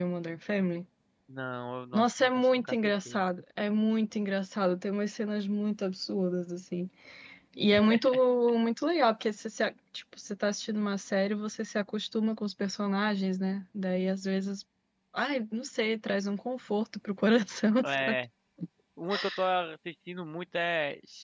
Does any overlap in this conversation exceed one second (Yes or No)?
Yes